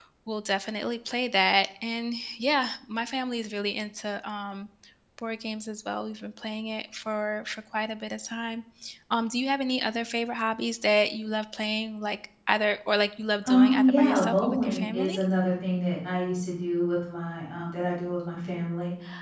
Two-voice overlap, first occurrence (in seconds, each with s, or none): 13.4 s